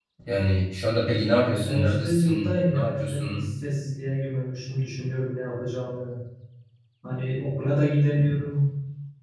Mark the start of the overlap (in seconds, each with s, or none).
1.6 s